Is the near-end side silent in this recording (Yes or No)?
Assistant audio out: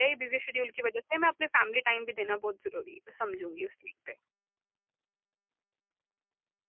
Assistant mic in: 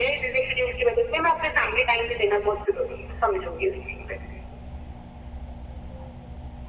Yes